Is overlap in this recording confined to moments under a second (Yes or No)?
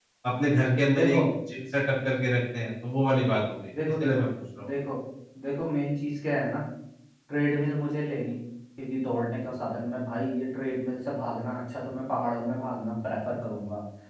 Yes